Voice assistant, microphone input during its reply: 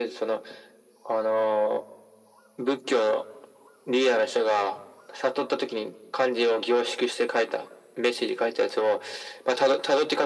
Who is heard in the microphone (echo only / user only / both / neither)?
echo only